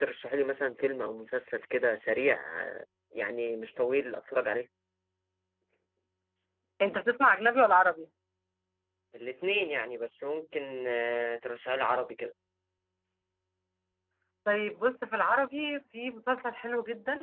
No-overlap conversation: Yes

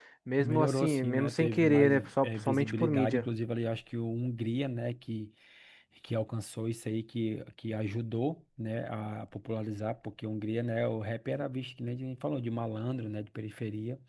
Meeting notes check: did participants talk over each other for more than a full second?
Yes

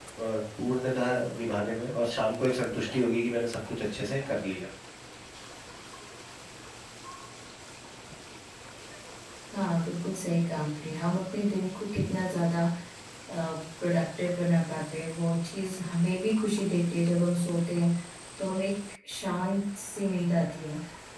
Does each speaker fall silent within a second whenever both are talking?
Yes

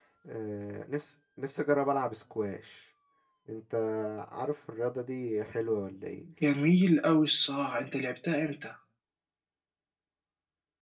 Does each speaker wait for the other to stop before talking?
Yes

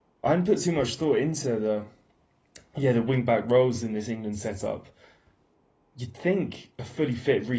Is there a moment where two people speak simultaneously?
No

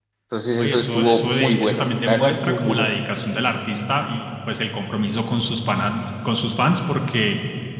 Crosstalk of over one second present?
Yes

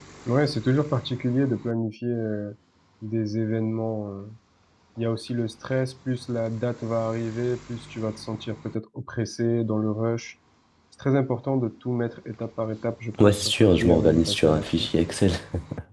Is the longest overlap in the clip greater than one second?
Yes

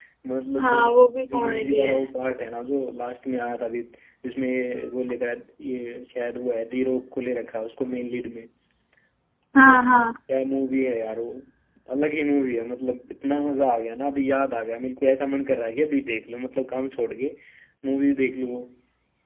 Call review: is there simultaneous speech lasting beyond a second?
Yes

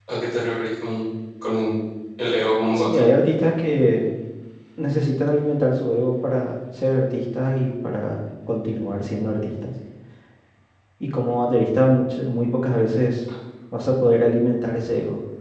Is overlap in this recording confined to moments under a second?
Yes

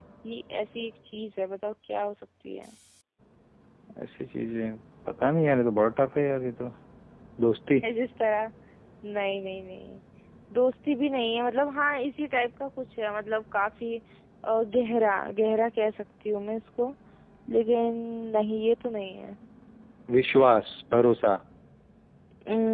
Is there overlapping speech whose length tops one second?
No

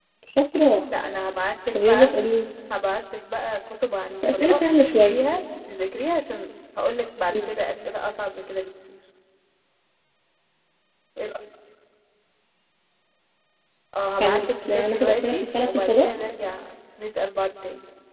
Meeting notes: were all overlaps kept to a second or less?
No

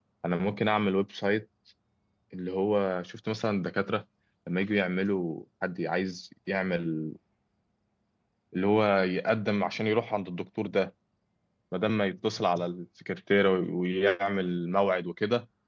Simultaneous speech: No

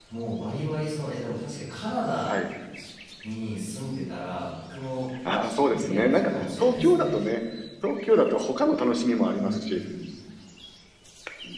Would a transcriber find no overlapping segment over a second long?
No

